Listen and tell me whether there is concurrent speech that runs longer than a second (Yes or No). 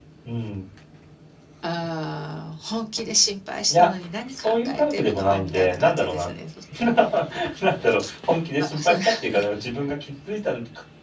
Yes